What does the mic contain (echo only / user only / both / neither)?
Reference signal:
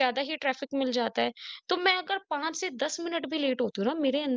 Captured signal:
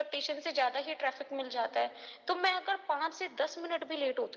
echo only